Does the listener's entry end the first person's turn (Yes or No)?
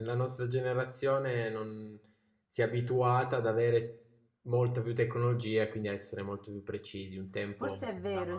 Yes